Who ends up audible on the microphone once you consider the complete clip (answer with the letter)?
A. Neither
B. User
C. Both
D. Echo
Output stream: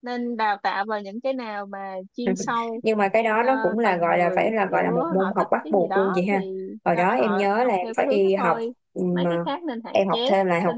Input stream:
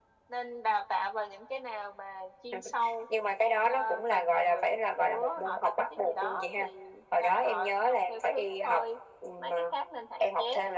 D